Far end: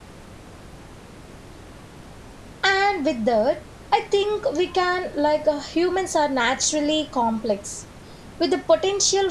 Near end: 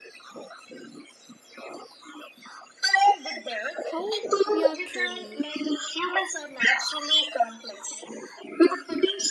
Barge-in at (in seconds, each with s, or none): 3.8 s